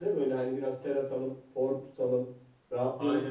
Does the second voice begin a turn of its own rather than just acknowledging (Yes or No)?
No